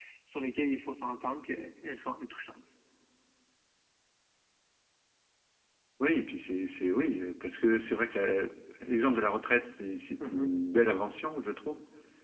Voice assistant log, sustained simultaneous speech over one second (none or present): none